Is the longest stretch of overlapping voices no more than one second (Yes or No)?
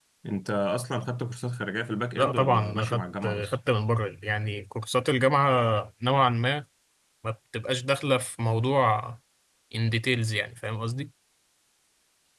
No